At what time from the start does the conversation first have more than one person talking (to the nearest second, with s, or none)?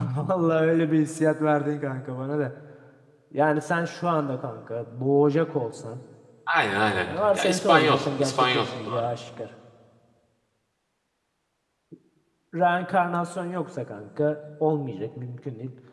7 s